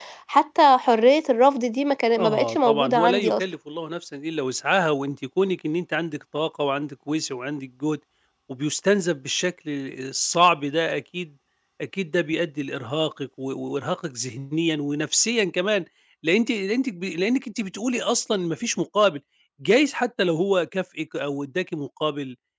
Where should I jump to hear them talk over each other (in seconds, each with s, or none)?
2.1 s